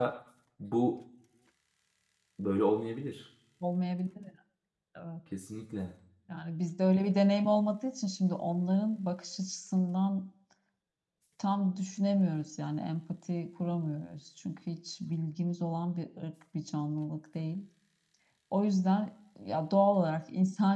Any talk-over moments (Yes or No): No